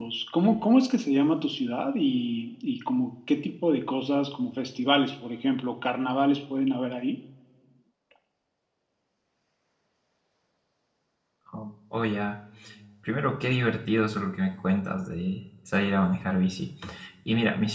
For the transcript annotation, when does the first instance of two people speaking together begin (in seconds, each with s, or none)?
none